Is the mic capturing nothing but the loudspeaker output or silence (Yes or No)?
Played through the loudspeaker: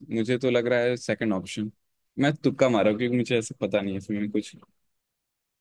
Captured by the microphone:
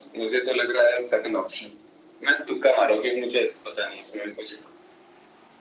Yes